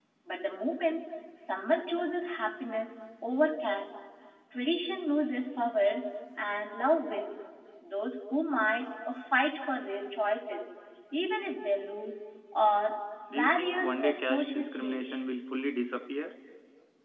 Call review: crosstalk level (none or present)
present